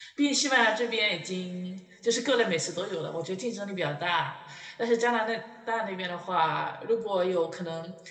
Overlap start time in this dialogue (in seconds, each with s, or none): none